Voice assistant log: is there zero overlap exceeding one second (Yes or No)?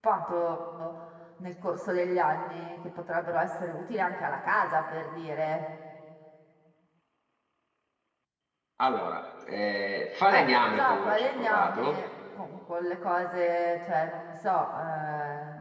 No